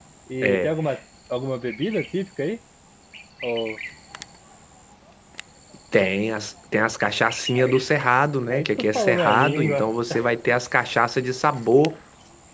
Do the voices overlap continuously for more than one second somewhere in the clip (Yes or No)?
Yes